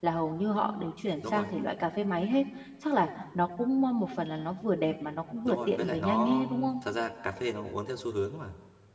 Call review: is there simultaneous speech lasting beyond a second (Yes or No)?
Yes